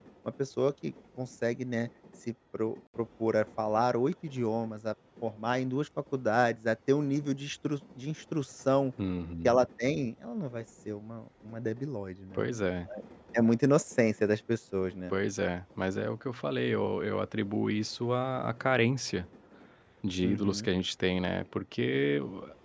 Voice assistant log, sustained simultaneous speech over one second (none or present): none